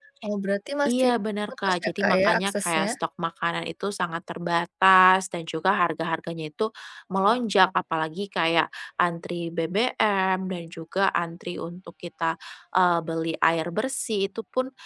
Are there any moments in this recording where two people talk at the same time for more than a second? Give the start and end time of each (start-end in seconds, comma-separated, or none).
1.6-2.9